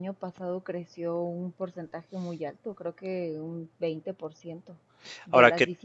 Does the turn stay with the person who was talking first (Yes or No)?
Yes